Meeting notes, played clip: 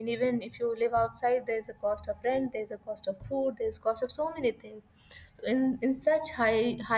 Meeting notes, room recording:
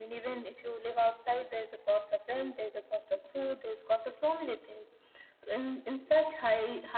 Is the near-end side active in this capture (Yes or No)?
No